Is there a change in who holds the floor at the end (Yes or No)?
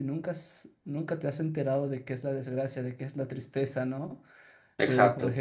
No